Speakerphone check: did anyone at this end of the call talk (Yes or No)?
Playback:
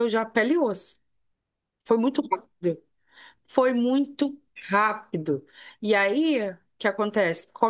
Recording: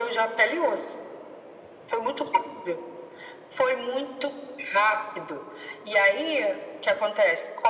No